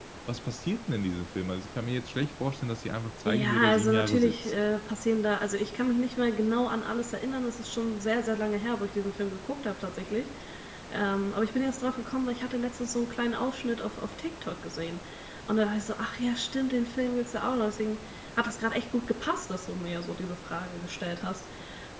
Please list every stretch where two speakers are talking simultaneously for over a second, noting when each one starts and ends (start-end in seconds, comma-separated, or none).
3.2-4.5